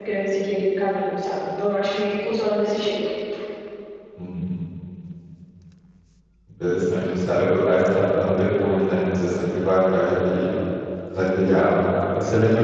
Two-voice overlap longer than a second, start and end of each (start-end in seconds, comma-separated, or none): none